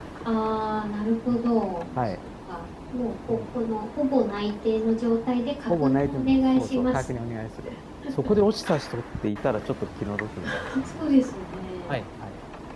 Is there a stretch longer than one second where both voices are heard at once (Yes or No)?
Yes